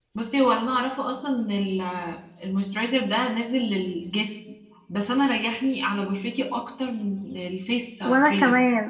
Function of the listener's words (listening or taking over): taking over